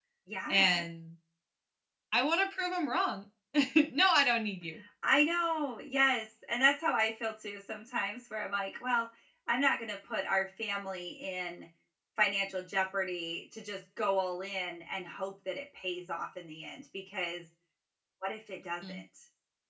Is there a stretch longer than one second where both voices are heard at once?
No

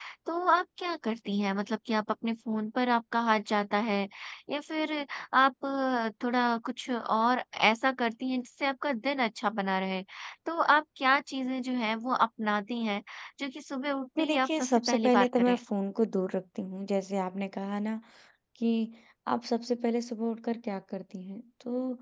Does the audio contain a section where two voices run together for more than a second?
Yes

